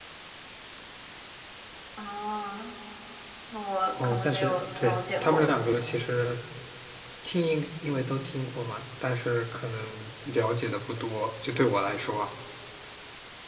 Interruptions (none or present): present